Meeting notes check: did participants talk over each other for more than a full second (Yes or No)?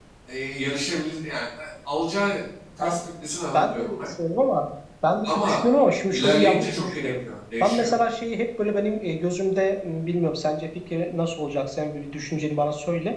Yes